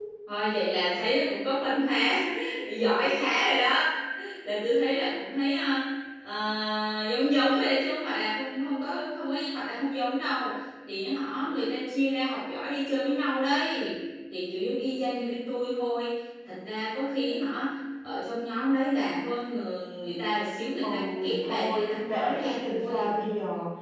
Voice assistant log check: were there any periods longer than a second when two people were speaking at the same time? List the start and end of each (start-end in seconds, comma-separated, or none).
20.8-23.1